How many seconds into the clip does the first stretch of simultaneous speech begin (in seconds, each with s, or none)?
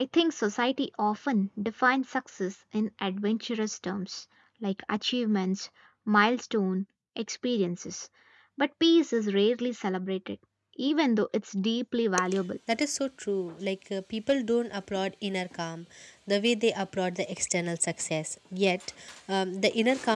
none